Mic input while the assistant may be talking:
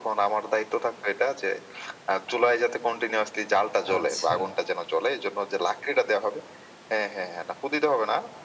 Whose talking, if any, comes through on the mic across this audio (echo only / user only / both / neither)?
both